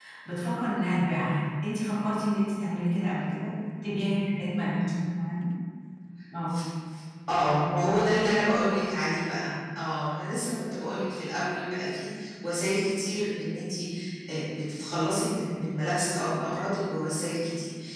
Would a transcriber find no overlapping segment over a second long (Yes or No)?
Yes